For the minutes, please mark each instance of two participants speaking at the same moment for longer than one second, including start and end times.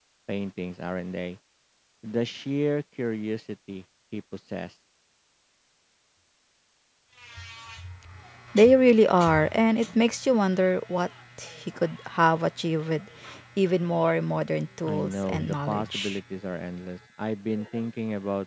14.8-16.2

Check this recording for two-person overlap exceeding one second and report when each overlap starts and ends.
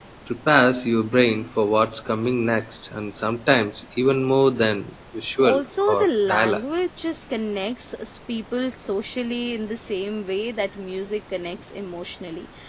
5.4-6.6

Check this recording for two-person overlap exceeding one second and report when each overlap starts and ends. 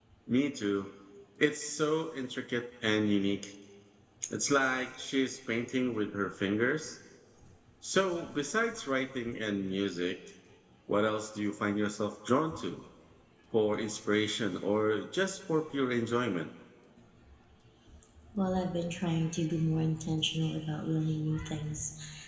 none

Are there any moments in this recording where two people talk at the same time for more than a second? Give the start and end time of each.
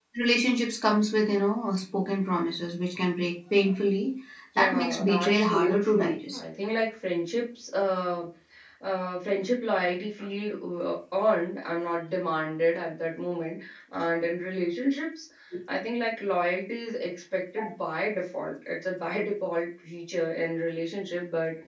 4.6-6.4

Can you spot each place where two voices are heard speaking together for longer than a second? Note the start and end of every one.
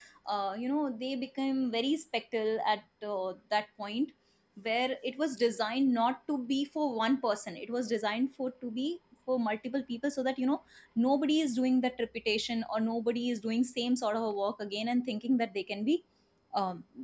none

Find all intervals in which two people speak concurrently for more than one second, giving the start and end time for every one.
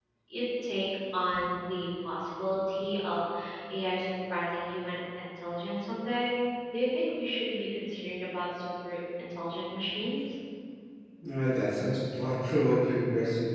none

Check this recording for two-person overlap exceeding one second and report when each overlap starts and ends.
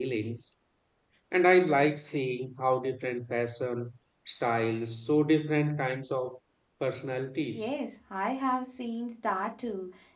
none

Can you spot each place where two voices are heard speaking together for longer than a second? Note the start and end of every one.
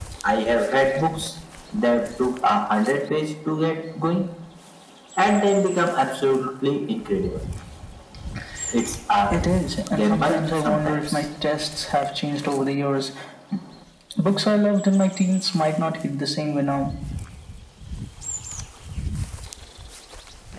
9.9-11.2

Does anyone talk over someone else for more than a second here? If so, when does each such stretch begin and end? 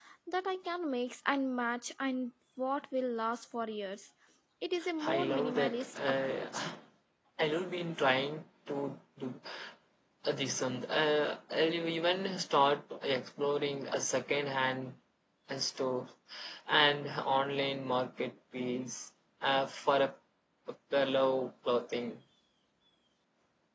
5.0-6.7

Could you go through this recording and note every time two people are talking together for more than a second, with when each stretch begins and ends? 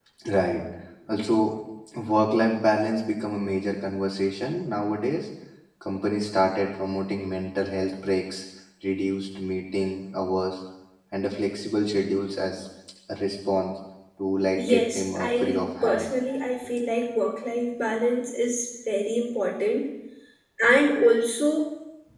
14.6-16.1

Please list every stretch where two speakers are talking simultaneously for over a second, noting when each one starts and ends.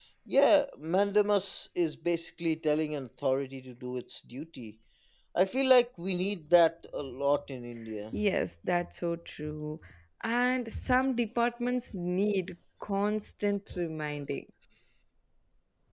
none

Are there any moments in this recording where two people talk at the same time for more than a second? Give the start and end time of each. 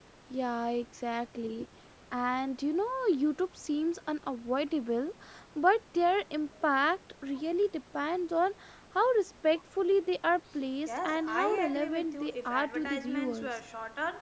10.9-13.5

